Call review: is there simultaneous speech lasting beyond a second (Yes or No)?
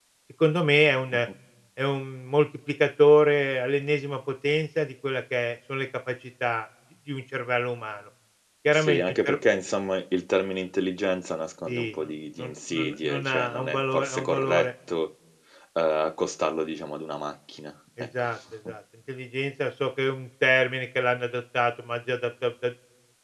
Yes